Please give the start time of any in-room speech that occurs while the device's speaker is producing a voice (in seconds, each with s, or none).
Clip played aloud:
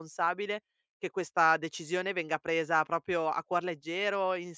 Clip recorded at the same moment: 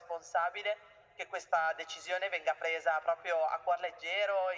none